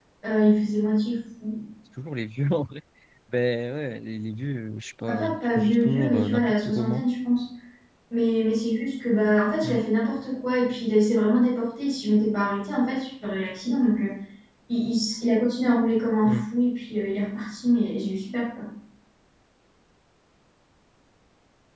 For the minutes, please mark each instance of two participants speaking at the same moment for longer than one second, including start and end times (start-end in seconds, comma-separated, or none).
5.1-7.0